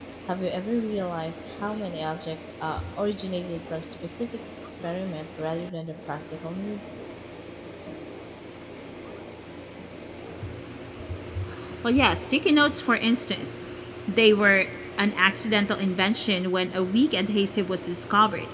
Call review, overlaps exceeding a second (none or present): none